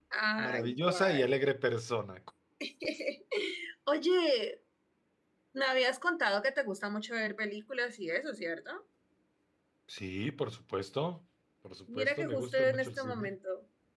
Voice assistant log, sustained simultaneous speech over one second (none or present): present